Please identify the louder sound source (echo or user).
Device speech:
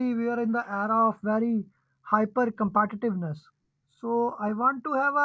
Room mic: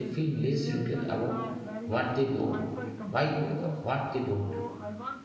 user